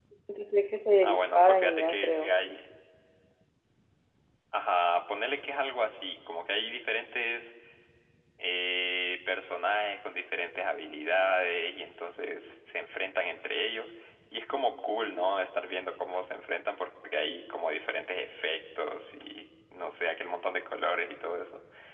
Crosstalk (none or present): present